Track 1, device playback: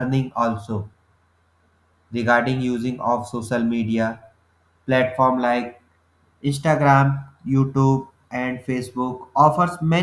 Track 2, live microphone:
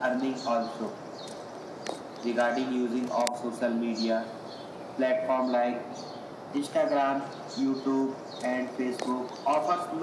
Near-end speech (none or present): none